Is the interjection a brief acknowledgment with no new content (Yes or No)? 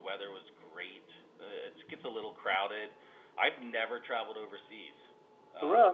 Yes